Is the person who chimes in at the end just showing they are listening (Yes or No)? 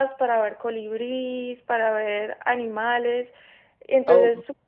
Yes